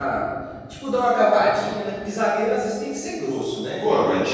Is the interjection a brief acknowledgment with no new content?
No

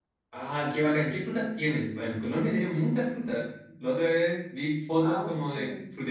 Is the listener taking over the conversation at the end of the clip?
No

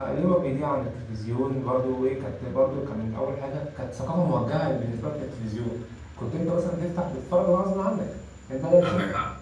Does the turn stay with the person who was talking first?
Yes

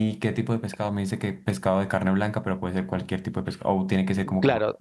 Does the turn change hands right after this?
Yes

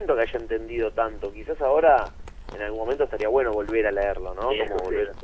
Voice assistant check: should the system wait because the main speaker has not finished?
Yes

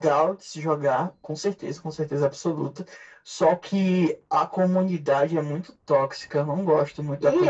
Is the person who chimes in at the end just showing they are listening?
No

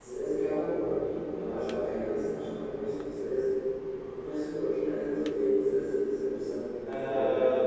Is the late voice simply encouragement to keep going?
No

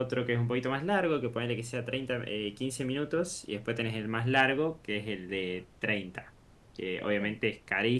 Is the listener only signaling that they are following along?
Yes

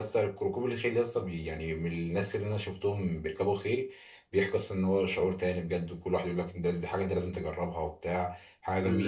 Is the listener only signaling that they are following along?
No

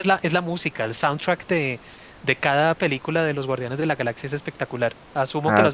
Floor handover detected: Yes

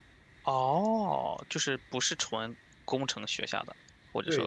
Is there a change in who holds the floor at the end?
Yes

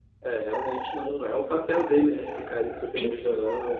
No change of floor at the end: No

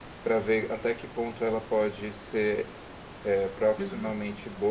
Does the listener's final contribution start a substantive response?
No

